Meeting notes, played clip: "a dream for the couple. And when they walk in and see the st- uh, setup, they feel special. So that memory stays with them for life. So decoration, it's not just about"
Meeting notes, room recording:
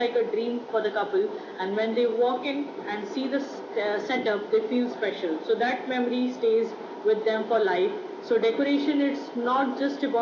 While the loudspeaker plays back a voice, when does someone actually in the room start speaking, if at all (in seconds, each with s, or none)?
none